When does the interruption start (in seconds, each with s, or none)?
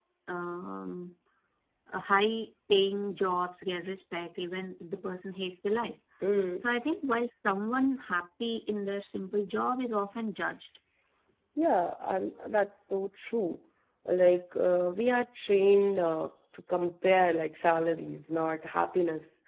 none